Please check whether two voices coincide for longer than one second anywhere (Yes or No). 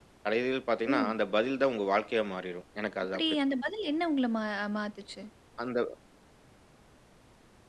No